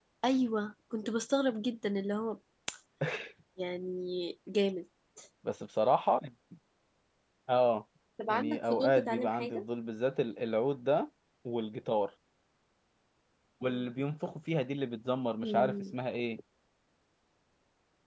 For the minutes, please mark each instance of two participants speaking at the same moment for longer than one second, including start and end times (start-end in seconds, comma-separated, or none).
8.3-9.6